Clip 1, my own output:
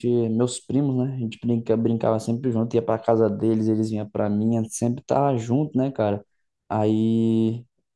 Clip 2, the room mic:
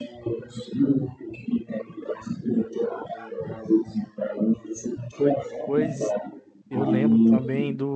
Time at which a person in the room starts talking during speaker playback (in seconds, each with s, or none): 5.2 s